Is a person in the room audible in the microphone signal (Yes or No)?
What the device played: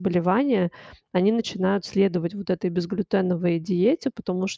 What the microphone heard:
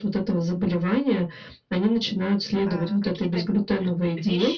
Yes